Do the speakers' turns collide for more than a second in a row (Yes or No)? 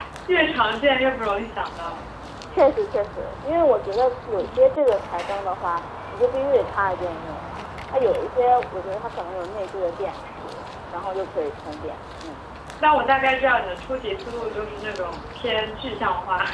No